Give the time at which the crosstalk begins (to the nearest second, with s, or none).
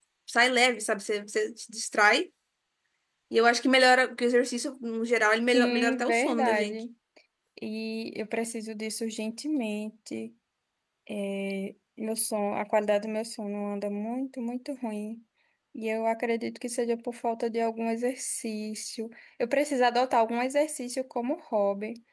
6 s